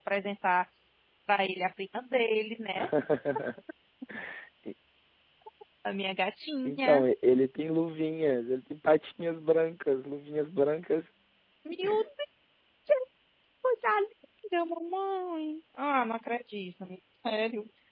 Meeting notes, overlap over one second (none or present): none